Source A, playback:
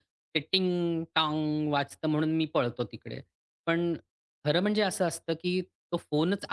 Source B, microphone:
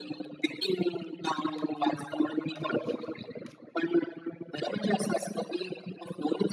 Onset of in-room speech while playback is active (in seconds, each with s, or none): none